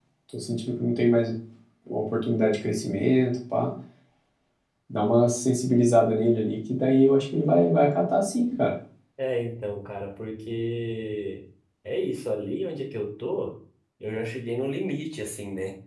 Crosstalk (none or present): none